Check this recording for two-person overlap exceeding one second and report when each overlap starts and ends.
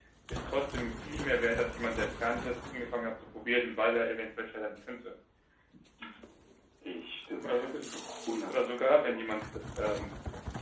7.4-9.2

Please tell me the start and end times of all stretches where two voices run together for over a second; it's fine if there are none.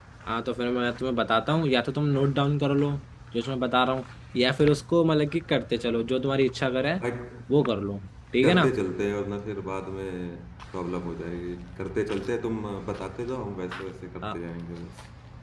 none

